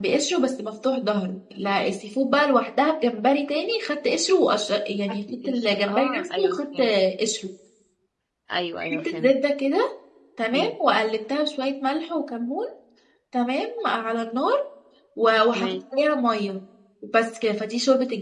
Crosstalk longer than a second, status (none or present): present